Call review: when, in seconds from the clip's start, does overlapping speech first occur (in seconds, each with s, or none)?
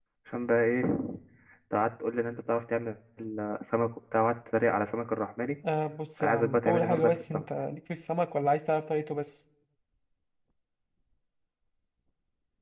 6.2 s